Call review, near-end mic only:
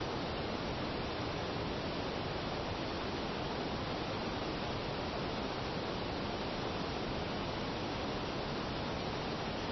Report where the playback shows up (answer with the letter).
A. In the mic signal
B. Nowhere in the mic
B